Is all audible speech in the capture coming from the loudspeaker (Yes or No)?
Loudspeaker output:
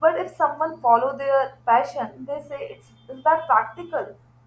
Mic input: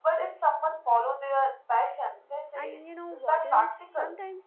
No